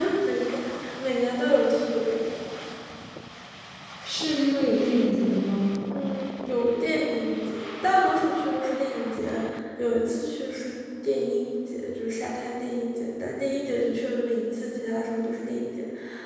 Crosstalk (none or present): none